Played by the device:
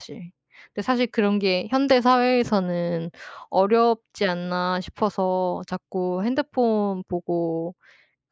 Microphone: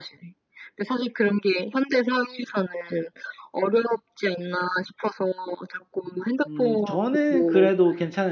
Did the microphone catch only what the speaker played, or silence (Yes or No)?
No